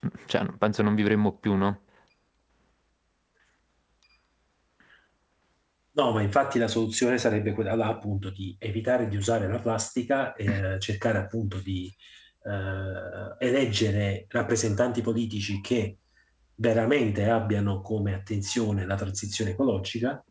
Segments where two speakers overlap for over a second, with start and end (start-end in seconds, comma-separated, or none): none